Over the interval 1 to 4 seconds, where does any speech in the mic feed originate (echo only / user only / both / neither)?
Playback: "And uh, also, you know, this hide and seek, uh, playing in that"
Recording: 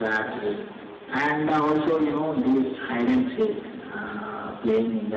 echo only